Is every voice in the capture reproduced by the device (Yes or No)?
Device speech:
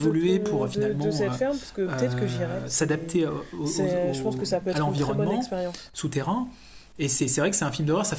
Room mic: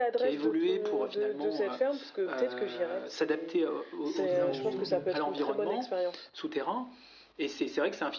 No